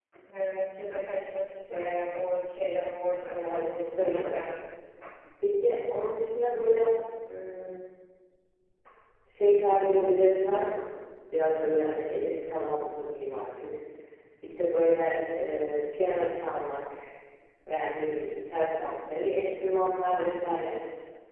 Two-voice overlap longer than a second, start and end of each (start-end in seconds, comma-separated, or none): 3.2-4.4